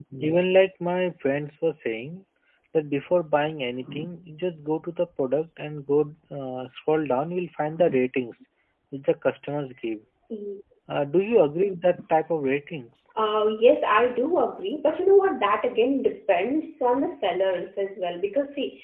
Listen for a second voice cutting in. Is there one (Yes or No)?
No